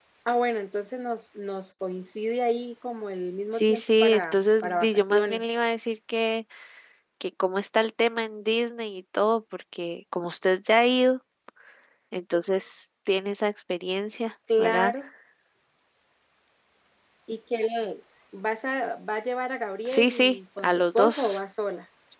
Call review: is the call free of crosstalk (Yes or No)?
No